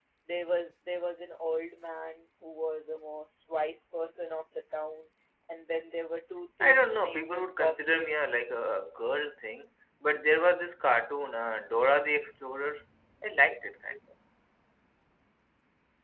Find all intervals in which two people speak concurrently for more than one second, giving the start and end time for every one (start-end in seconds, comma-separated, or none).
6.7-8.3